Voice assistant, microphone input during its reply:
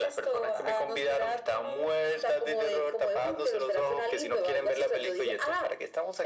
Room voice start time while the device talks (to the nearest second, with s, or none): none